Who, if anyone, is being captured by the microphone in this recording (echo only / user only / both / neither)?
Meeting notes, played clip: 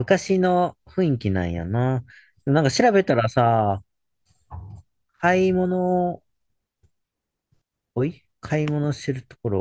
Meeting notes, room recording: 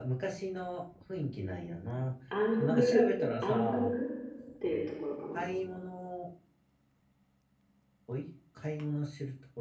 both